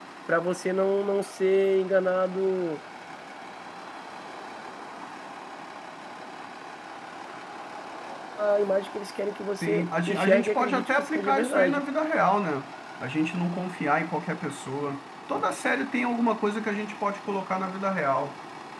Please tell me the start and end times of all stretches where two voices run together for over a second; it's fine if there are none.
9.6-11.8

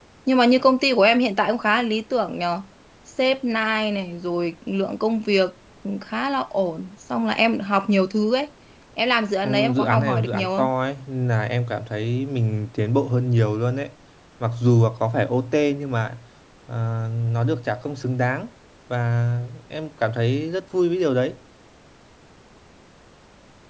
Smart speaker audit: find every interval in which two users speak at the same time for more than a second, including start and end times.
9.4-10.7

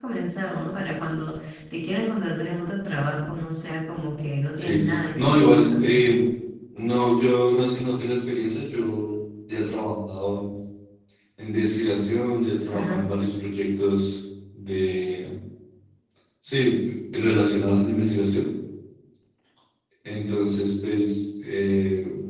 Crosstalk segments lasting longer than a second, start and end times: 4.6-6.0

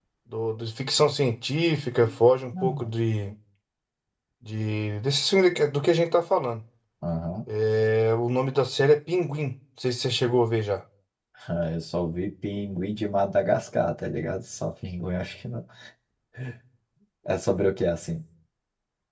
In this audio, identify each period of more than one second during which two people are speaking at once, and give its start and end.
none

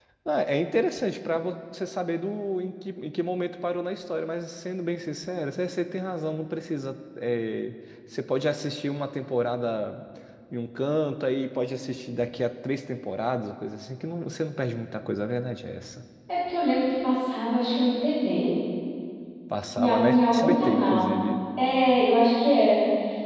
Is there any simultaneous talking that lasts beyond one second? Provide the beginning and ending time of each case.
19.7-21.2

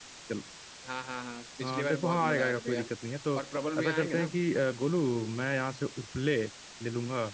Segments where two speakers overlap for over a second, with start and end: 1.6-2.9

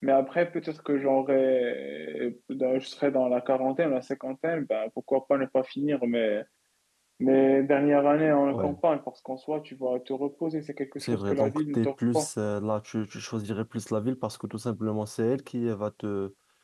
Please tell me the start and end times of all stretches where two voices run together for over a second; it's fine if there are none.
11.0-12.3

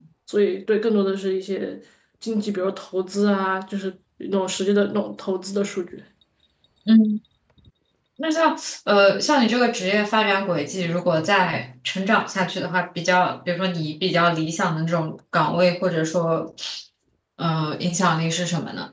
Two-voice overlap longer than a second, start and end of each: none

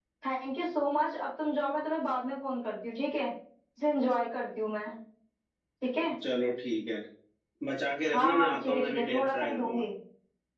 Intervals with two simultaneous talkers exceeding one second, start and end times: 8.1-9.8

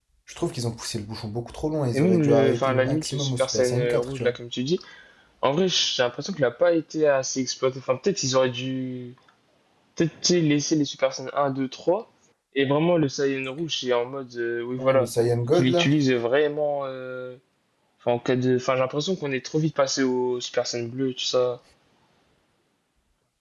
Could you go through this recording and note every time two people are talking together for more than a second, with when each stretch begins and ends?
1.9-4.3

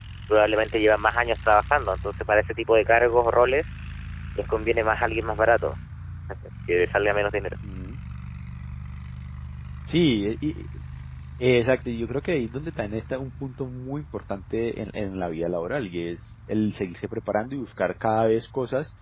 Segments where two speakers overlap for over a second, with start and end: none

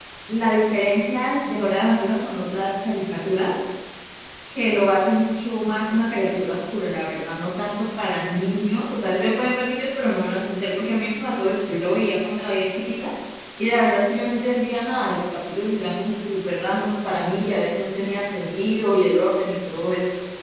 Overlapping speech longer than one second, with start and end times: none

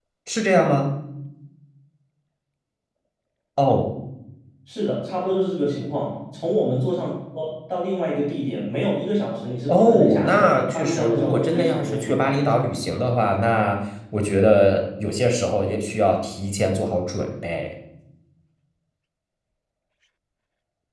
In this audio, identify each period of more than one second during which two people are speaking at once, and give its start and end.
9.7-12.2

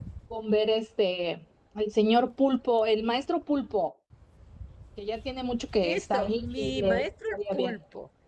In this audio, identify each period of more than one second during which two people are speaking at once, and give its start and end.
5.8-7.7

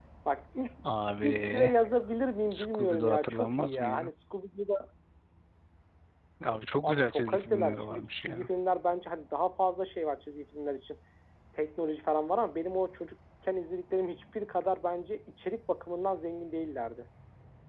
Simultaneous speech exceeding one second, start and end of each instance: 2.5-4.1, 6.8-8.5

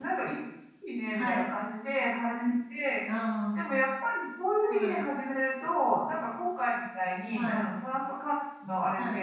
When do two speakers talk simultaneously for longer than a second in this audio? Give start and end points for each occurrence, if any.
none

